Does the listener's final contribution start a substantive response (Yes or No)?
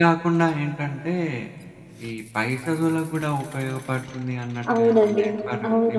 Yes